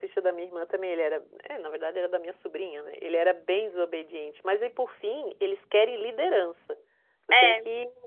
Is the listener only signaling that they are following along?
Yes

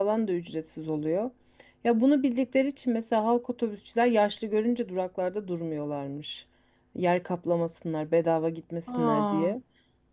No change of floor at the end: Yes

